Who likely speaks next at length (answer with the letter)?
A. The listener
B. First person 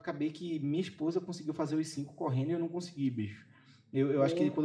B